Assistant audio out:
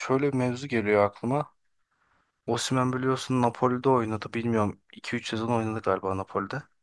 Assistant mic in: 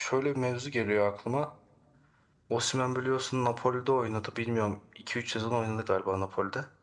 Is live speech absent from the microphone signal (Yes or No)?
Yes